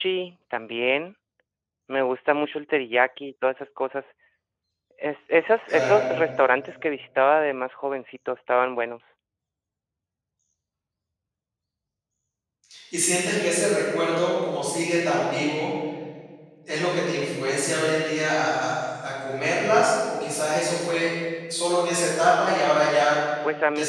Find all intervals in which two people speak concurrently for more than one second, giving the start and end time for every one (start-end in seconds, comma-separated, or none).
none